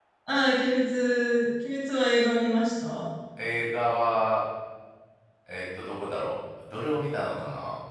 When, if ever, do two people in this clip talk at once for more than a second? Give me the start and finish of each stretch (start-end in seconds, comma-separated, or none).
none